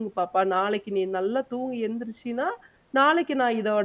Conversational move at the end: listening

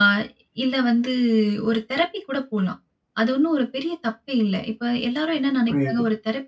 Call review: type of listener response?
listening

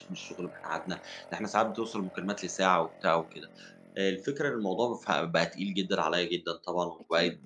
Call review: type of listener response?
listening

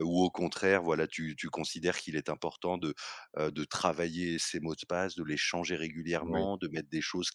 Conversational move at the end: listening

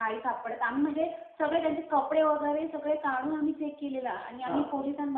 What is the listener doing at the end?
listening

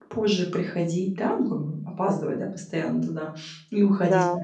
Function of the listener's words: listening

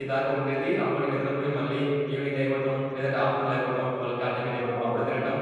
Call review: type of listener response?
listening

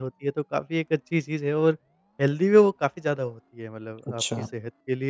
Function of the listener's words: listening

